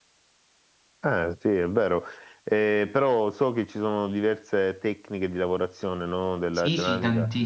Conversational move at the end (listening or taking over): taking over